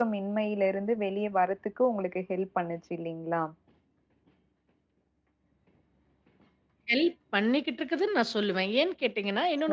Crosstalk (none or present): none